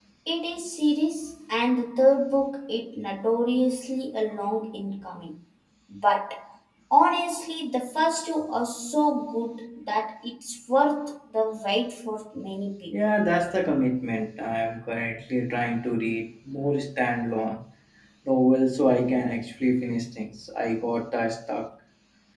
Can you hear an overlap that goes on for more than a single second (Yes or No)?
No